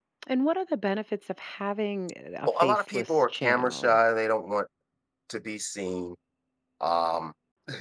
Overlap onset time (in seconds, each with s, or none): 2.5 s